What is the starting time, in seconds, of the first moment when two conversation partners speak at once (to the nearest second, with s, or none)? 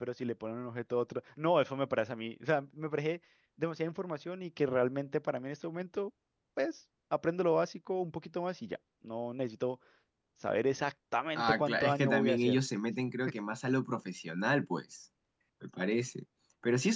11 s